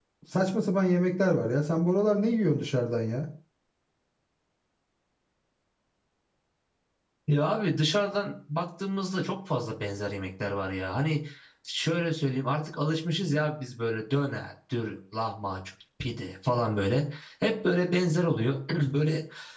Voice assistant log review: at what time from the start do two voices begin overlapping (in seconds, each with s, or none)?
none